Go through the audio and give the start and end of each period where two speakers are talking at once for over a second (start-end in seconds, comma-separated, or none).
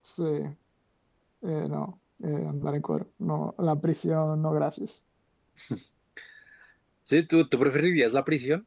none